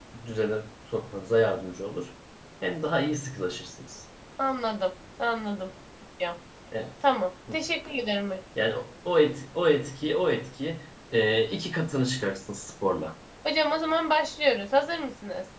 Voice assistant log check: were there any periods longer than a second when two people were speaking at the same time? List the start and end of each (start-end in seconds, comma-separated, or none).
none